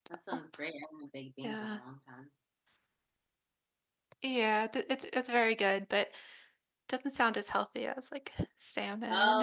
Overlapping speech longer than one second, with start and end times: none

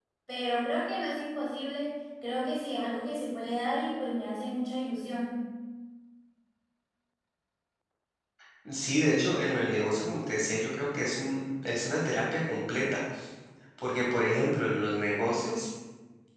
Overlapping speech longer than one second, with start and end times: none

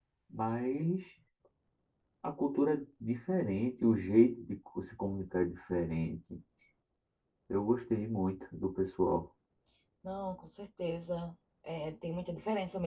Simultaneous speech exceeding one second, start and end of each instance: none

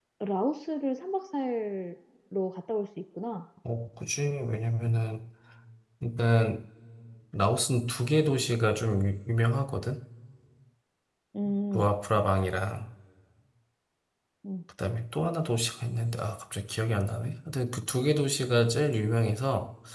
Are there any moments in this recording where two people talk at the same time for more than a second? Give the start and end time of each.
none

